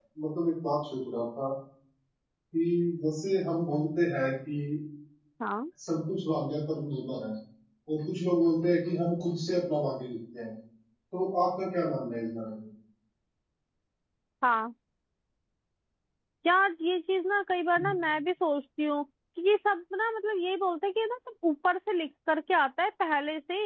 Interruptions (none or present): none